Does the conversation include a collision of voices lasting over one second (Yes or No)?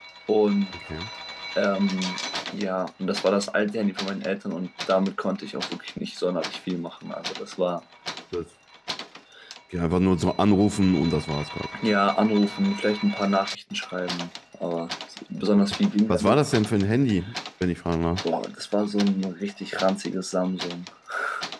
No